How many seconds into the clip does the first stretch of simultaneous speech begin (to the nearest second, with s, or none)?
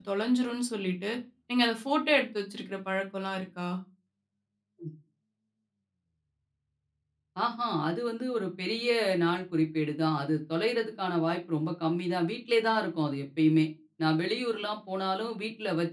none